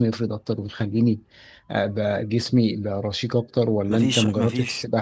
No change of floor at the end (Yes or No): No